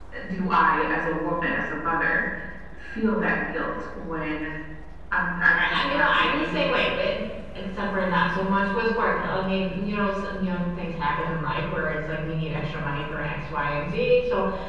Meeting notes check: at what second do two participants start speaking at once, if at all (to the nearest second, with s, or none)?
6 s